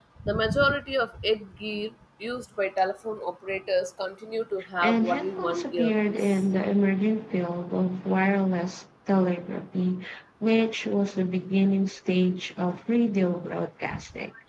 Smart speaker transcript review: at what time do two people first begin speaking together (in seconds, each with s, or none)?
4.8 s